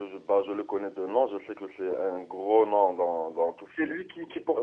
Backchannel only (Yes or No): No